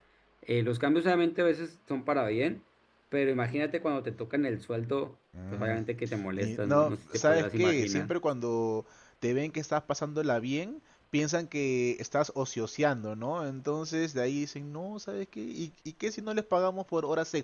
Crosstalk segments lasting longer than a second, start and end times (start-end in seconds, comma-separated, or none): 6.4-8.1